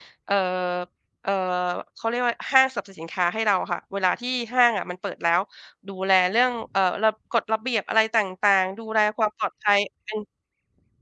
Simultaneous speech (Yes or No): No